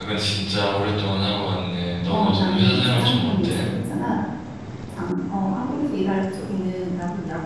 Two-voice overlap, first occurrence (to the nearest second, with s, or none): 2 s